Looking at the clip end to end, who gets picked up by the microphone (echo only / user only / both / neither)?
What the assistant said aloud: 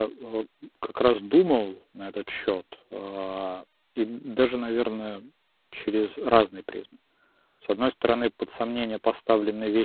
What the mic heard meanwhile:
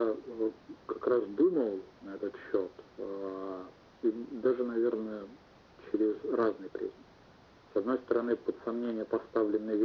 echo only